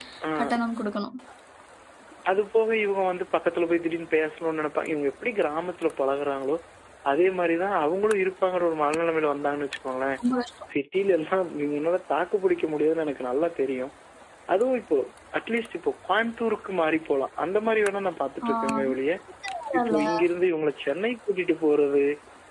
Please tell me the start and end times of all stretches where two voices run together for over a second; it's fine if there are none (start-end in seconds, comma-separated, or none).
none